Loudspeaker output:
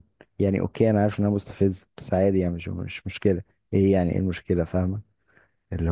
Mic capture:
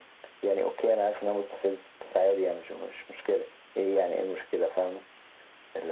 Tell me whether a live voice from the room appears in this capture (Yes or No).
No